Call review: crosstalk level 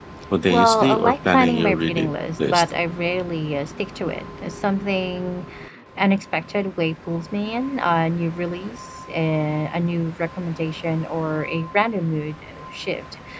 present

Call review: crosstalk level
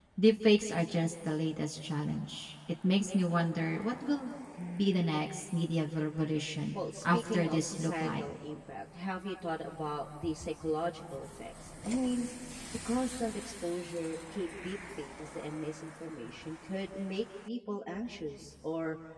present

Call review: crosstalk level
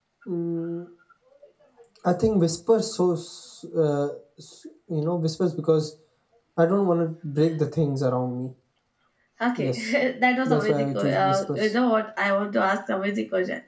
present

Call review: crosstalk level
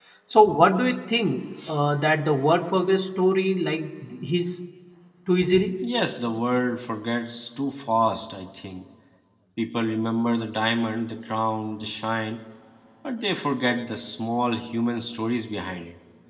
none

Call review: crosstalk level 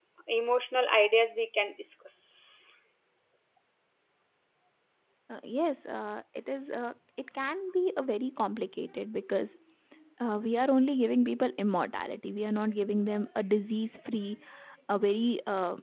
none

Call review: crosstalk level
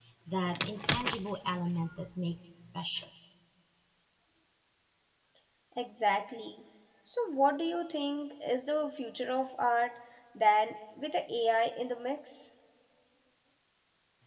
none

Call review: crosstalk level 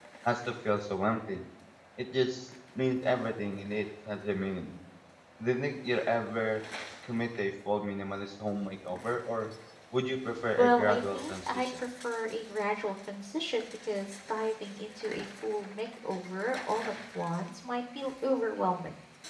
present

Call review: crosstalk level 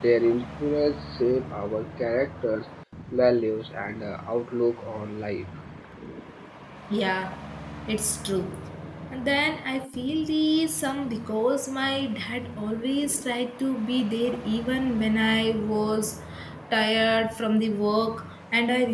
none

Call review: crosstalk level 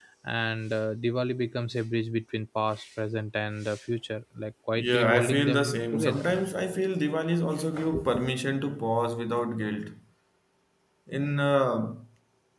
present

